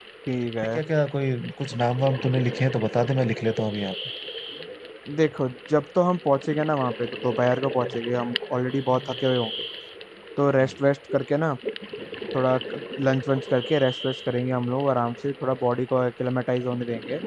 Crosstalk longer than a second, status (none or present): none